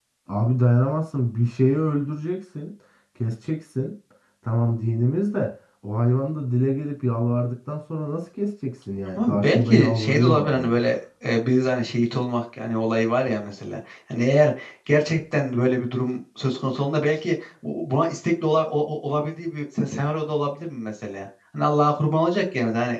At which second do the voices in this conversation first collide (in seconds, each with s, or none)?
9.2 s